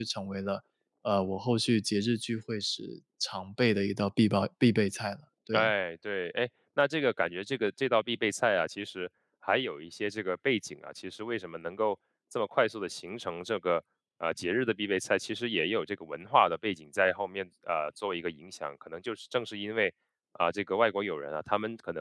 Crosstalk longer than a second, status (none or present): none